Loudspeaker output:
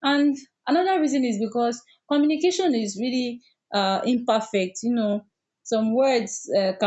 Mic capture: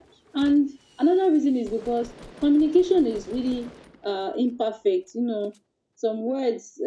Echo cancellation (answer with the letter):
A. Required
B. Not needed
A